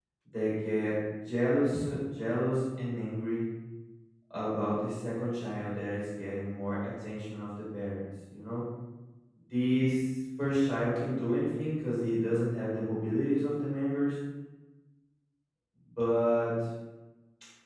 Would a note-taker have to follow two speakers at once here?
No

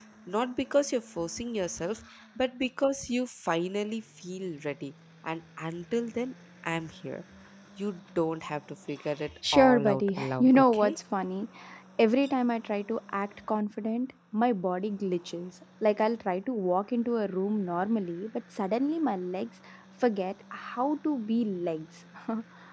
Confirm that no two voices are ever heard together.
No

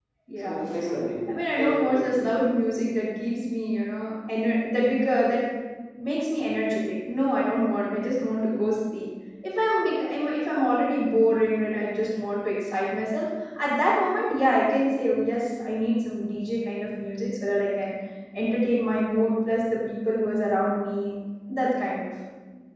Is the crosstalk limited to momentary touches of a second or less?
No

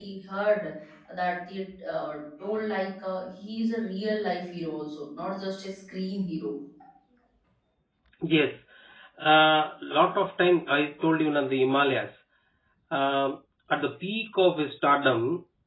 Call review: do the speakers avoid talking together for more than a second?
Yes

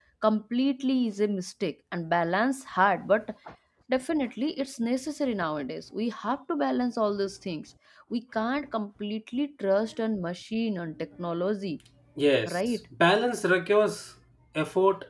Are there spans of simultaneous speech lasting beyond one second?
No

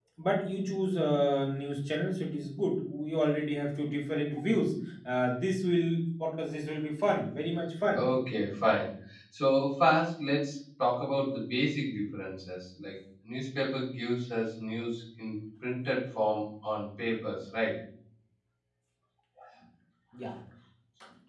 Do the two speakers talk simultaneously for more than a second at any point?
No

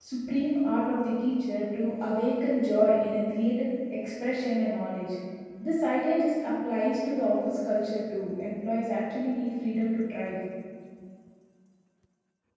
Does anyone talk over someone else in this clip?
No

